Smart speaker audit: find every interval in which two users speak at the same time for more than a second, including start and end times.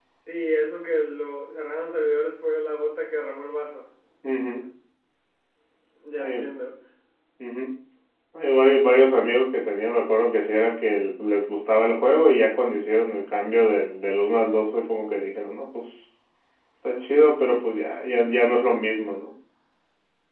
none

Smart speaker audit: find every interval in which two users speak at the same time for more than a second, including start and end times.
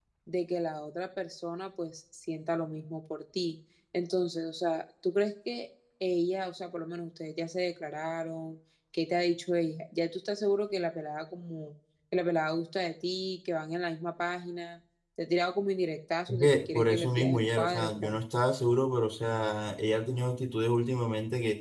16.3-18.2

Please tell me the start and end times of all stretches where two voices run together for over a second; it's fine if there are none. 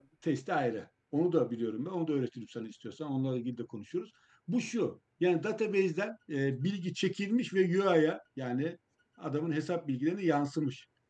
none

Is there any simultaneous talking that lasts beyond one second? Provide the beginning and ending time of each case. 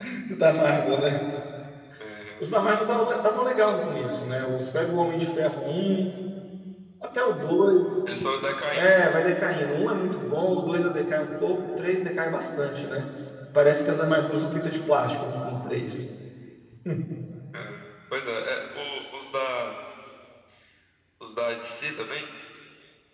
none

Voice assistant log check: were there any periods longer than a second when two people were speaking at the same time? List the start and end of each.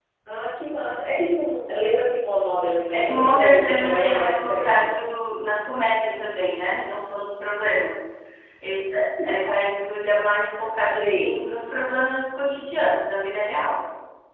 2.9-4.9

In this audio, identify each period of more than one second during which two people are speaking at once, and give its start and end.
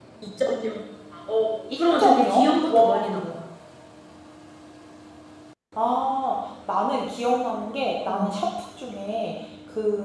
1.8-3.1

